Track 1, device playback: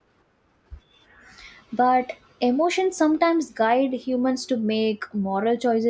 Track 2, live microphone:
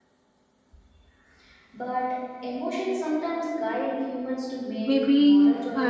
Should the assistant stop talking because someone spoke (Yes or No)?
Yes